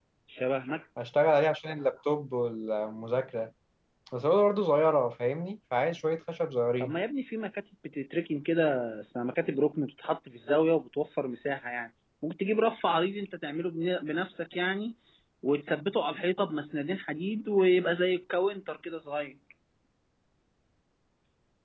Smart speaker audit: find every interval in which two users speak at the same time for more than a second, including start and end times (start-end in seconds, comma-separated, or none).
none